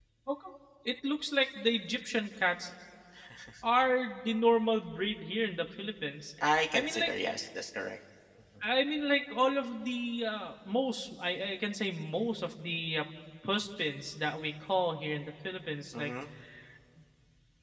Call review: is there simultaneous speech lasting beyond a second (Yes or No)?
No